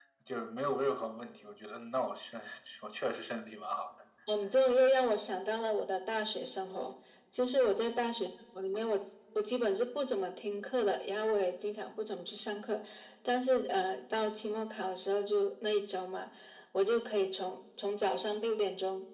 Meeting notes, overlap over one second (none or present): none